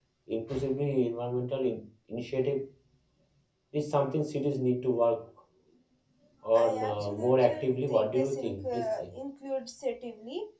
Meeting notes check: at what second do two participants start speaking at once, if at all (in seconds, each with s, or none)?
6.6 s